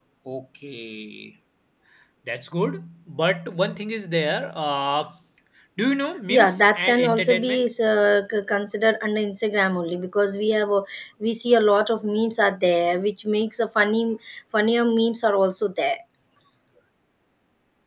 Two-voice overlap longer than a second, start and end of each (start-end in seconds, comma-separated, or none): 6.3-7.7